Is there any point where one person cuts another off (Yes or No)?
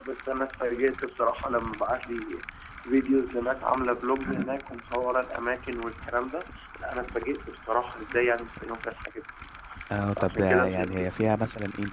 Yes